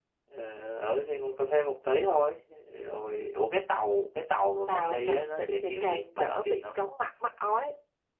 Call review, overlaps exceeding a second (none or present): present